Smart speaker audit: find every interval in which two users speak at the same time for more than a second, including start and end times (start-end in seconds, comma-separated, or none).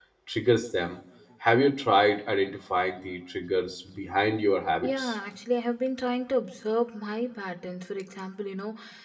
none